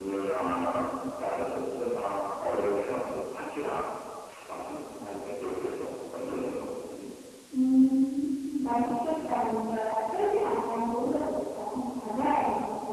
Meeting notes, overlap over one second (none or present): none